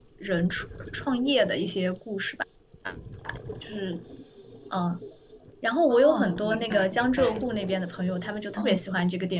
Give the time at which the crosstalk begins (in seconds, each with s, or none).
5.9 s